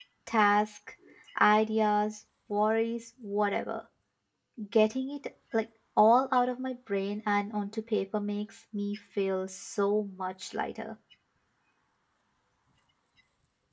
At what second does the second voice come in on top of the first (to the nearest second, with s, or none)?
none